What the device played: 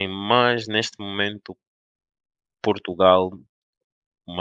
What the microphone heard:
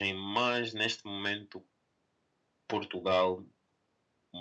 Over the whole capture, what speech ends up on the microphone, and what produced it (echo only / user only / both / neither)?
echo only